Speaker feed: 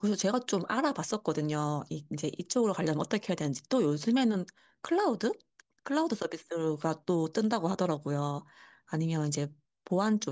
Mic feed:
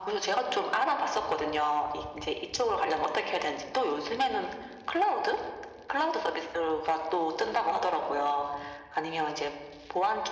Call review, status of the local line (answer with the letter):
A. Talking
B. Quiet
B